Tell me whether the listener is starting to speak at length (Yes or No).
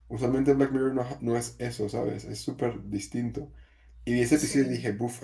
No